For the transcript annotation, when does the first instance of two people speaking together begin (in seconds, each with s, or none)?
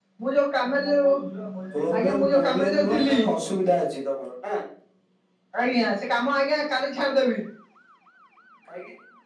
1.7 s